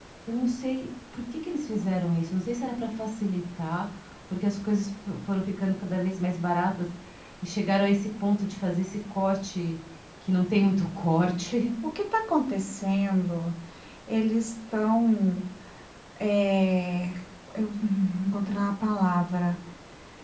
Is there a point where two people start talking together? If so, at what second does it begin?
none

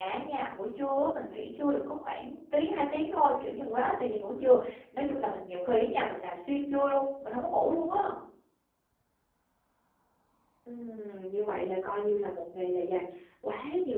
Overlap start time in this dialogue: none

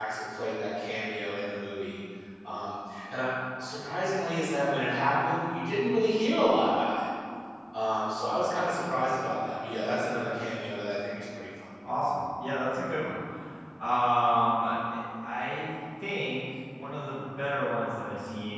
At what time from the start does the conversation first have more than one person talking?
none

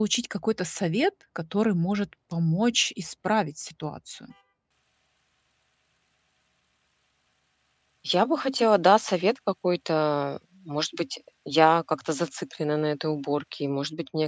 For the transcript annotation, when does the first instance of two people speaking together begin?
none

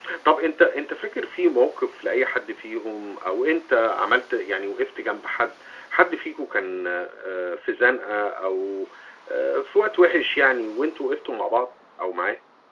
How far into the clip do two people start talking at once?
none

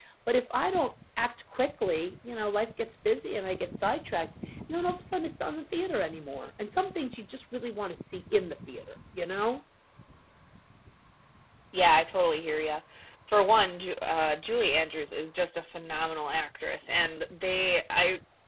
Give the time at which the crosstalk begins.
none

